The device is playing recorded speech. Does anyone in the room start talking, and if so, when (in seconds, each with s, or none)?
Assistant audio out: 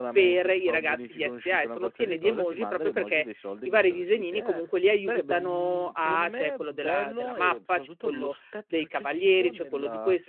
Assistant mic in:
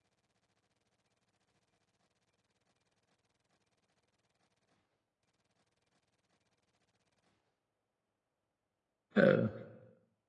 9.2 s